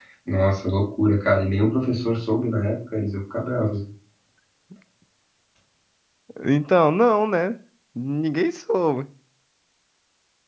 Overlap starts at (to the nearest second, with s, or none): none